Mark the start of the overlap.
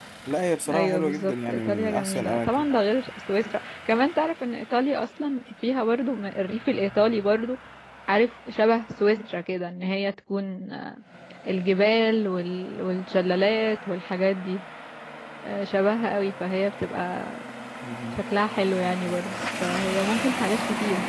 0.7 s

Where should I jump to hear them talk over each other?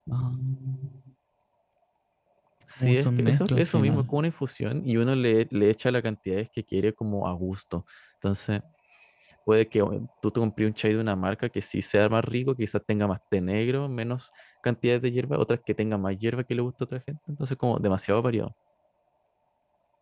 2.8 s

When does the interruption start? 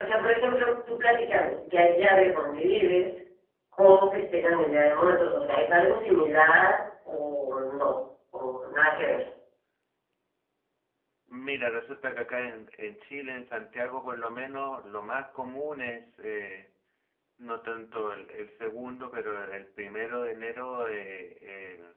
none

